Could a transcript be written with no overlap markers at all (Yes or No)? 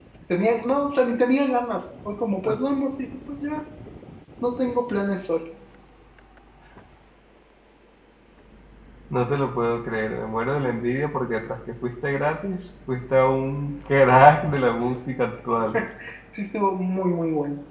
Yes